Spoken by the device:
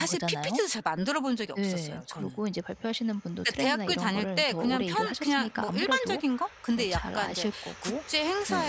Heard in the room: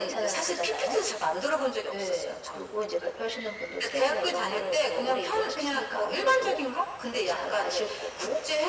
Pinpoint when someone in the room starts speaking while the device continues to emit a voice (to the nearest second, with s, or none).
none